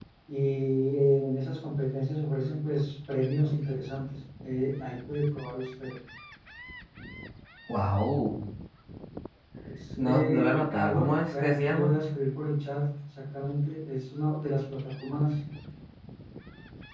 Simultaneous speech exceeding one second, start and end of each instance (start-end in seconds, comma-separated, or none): 10.0-11.9